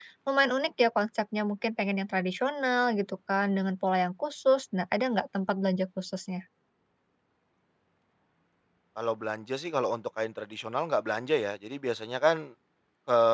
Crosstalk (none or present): none